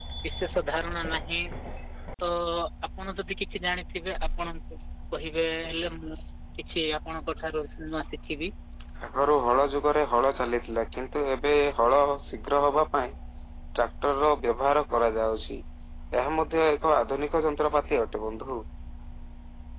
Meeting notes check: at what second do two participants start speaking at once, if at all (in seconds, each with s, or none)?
none